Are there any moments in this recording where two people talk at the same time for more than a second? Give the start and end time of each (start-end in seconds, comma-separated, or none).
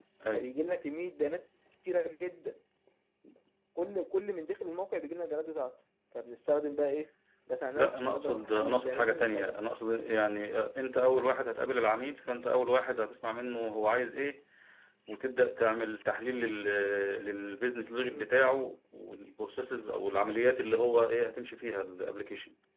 7.8-9.6